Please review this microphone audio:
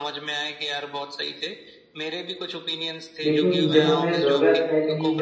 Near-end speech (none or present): present